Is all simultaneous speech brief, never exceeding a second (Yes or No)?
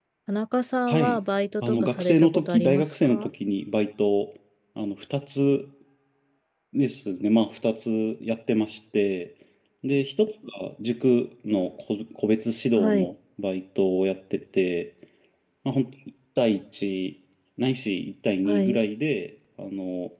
No